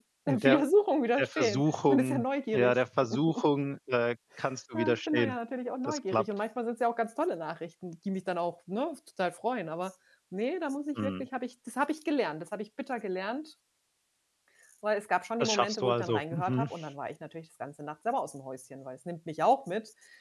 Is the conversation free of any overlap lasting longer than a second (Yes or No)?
No